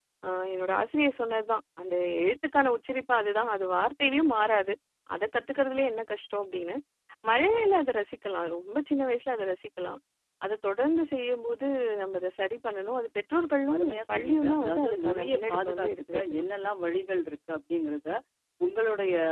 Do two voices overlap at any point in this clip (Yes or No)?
Yes